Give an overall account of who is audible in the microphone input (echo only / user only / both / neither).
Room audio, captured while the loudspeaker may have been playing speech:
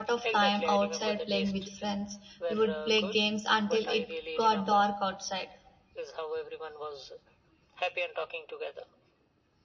both